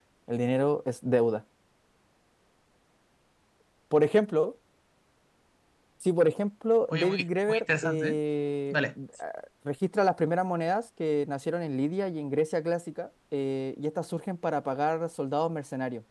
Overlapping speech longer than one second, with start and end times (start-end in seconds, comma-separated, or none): 6.9-8.2